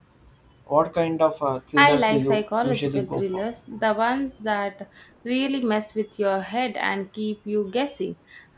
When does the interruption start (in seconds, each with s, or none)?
1.8 s